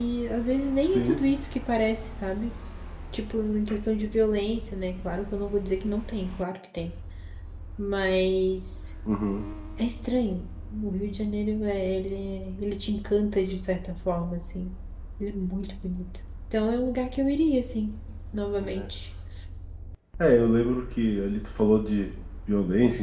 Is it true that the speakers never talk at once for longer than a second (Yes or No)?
Yes